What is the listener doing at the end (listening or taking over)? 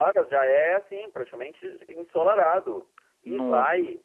listening